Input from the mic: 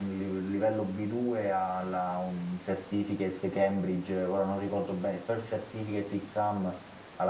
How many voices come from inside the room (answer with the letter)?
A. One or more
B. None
A